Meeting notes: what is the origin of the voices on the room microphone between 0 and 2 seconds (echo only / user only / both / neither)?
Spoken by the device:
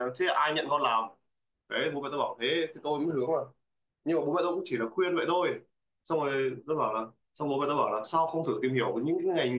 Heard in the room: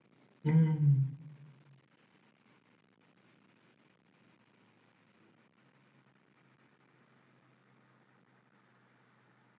user only